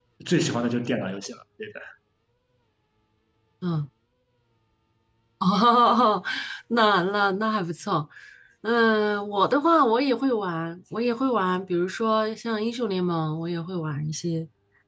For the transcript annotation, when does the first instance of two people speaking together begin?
none

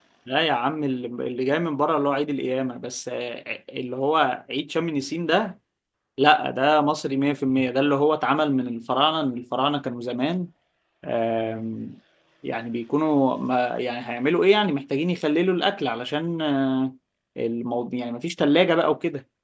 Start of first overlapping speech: none

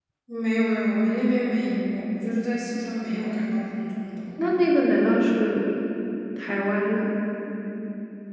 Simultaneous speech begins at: none

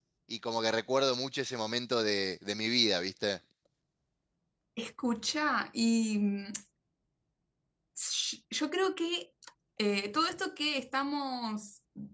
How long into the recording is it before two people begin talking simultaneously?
none

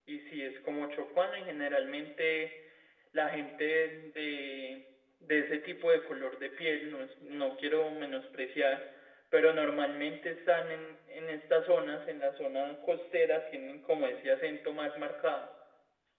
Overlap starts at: none

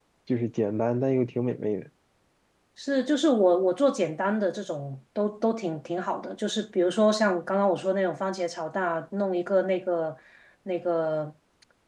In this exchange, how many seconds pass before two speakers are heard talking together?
none

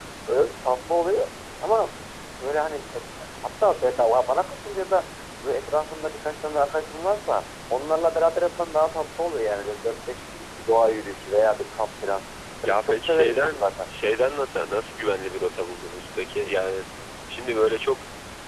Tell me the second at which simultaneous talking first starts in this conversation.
12.7 s

